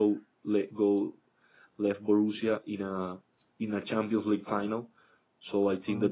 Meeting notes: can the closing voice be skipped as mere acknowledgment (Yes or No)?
Yes